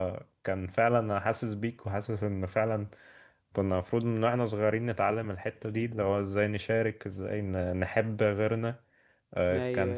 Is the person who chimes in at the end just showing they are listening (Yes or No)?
Yes